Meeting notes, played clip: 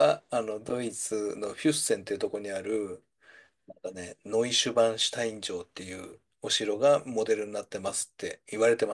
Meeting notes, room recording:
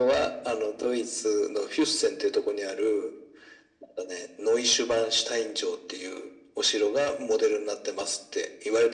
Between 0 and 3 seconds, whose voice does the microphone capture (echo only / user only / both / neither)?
echo only